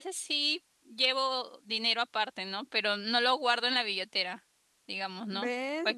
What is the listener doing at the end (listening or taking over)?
taking over